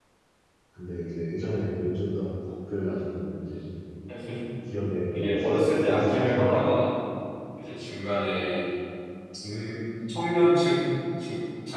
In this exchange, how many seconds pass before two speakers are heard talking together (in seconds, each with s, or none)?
5.1 s